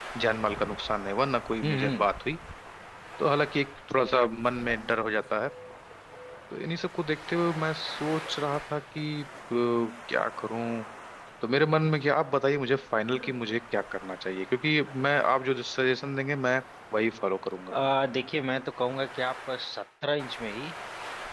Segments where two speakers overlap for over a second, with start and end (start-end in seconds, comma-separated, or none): none